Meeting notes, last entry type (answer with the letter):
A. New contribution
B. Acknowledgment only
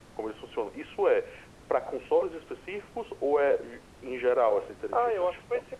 A